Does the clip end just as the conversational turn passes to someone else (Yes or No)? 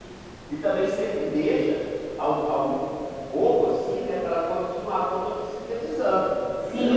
Yes